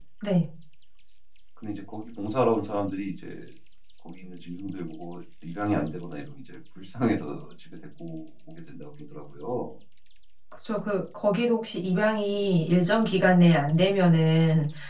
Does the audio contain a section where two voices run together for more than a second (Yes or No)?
No